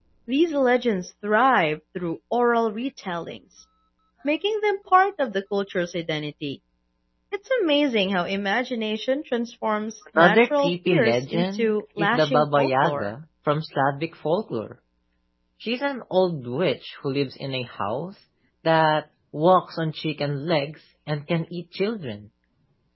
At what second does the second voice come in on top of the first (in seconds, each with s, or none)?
10.2 s